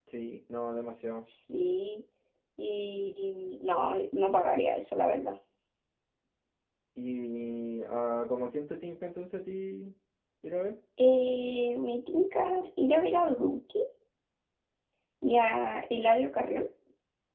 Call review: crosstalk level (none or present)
none